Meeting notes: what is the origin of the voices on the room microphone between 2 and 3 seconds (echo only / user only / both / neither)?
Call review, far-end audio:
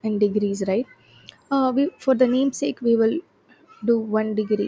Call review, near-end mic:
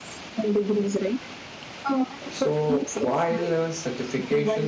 both